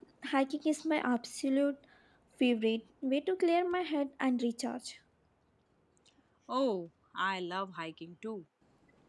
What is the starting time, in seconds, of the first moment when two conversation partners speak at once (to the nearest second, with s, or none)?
none